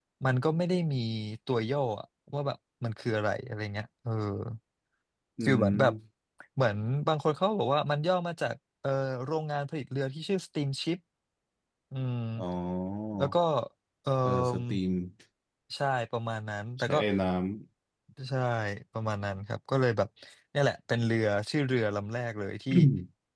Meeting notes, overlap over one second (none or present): none